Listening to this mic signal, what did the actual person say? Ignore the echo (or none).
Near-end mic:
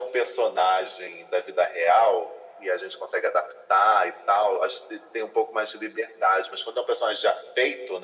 none